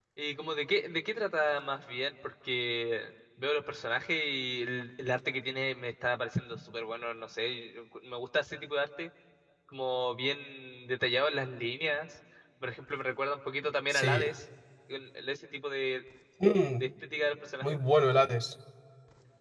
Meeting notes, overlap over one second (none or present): none